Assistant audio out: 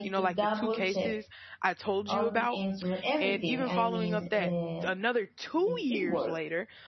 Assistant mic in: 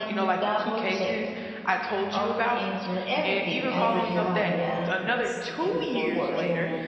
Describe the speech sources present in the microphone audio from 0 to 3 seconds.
echo only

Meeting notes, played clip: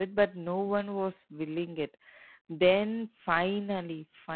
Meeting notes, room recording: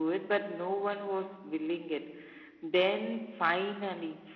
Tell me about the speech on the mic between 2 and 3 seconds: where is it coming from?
echo only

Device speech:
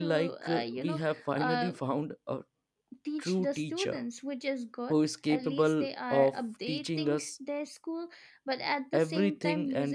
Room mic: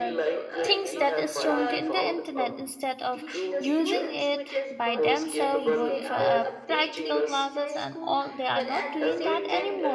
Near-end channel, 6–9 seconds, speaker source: both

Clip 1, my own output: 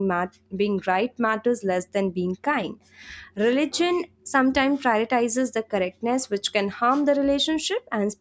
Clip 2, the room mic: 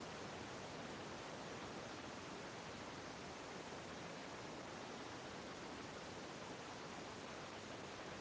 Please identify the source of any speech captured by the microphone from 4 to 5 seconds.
neither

